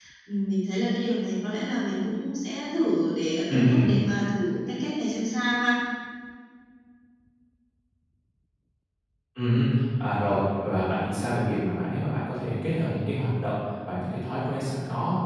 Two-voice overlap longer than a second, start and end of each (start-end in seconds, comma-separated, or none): none